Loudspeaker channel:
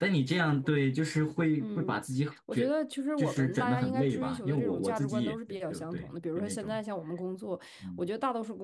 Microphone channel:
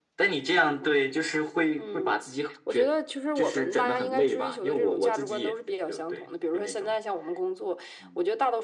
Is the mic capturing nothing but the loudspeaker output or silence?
Yes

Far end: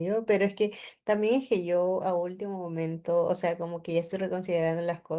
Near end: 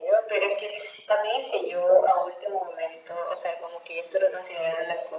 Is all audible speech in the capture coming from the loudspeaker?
Yes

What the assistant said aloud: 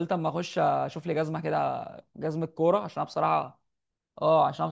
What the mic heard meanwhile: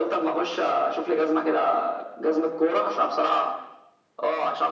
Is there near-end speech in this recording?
No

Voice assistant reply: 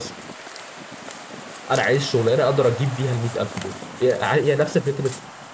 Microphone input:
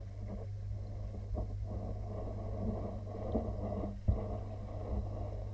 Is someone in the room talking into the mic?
No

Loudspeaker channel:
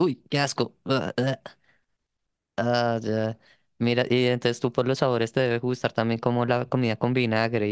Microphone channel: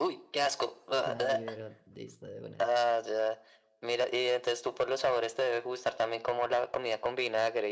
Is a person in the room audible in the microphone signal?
Yes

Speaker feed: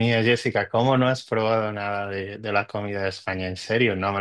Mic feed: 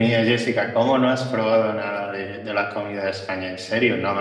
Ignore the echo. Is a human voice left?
No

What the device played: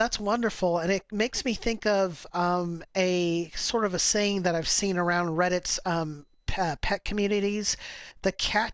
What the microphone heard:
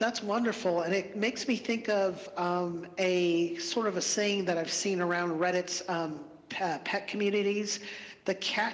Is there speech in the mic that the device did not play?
No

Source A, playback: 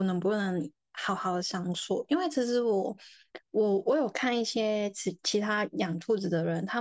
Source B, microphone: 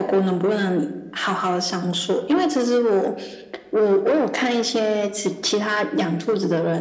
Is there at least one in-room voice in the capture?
No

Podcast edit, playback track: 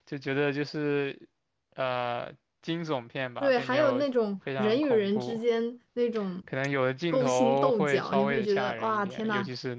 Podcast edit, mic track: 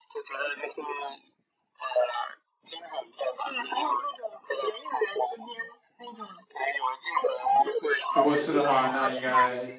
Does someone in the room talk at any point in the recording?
Yes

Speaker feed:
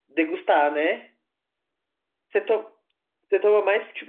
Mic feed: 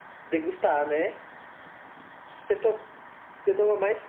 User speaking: No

